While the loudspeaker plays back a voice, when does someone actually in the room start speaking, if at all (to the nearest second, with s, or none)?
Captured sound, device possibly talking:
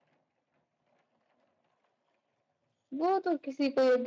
3 s